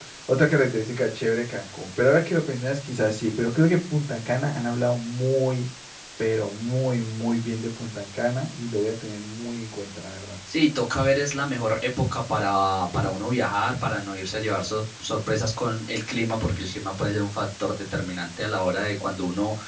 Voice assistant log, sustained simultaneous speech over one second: none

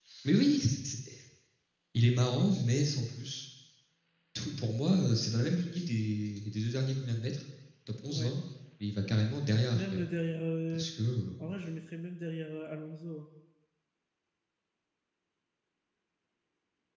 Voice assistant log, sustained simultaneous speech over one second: none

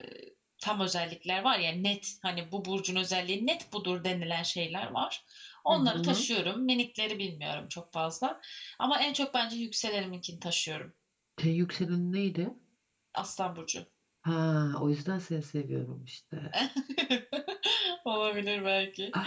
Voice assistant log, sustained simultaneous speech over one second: none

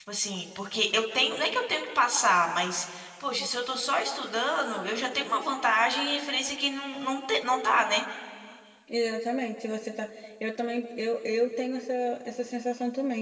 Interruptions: none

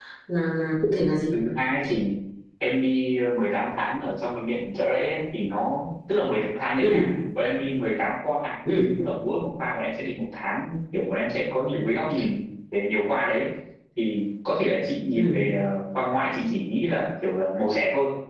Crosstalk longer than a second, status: none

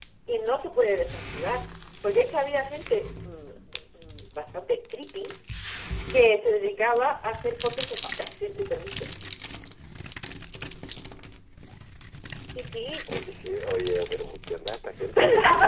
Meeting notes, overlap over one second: none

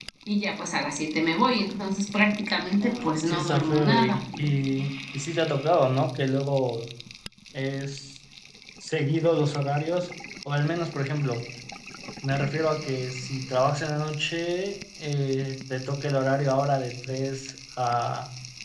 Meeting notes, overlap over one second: present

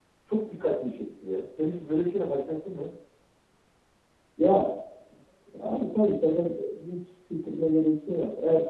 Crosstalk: none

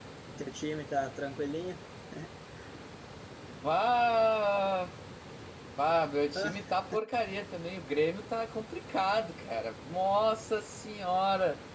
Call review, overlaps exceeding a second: none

